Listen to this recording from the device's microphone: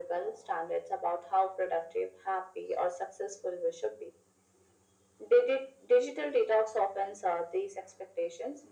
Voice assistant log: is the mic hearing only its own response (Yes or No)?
Yes